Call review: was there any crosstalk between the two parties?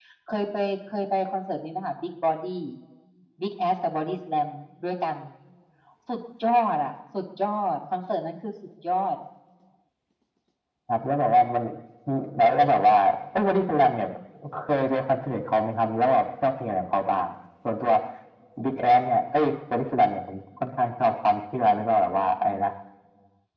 No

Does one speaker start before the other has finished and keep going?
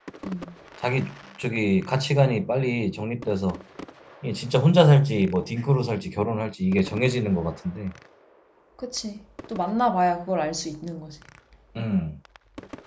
No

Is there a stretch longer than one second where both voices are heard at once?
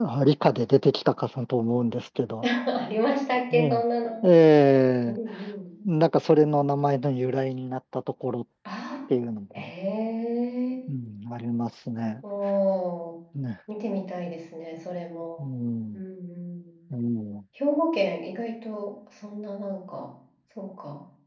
No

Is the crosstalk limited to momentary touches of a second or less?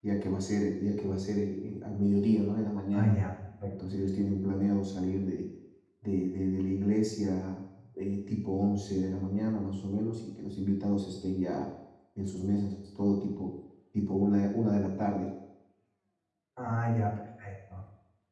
Yes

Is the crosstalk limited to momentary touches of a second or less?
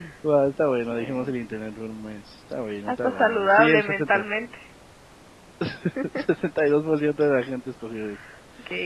No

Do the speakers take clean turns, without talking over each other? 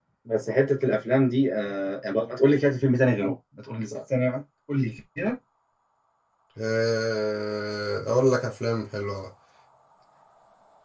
Yes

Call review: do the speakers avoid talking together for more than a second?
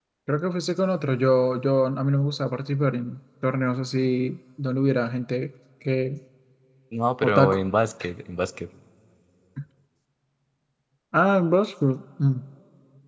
Yes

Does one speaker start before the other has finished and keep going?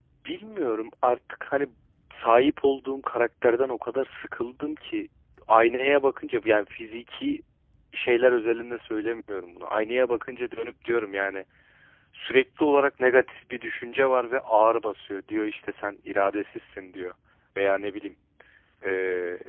No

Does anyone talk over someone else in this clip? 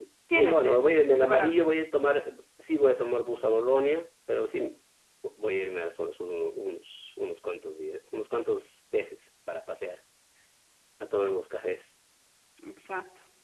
Yes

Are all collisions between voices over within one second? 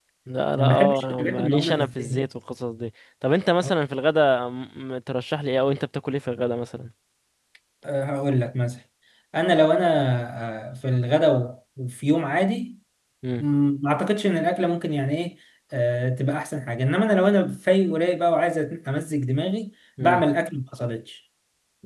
No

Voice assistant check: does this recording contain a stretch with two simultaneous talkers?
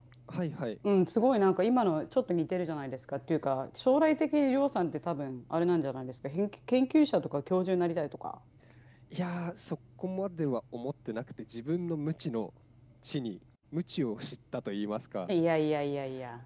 No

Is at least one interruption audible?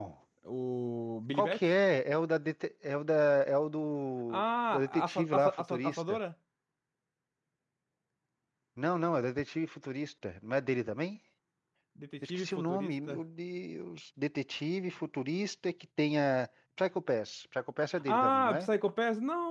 Yes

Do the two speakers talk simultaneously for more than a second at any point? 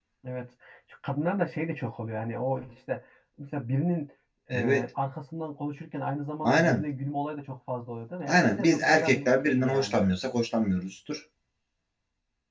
Yes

